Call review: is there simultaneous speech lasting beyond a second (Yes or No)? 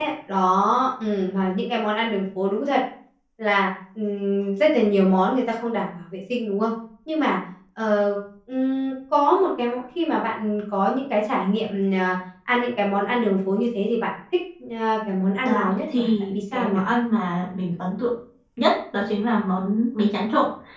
Yes